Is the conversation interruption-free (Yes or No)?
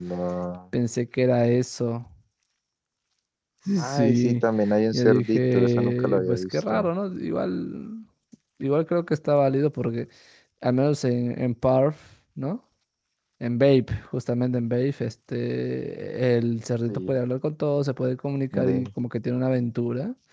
No